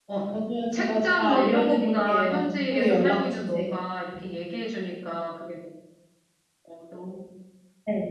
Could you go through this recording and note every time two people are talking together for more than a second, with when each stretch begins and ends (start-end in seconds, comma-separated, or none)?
0.7-3.6